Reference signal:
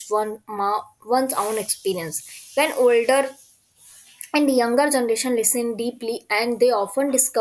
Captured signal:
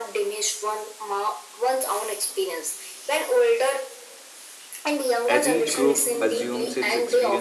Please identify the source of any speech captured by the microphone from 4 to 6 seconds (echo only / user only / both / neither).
both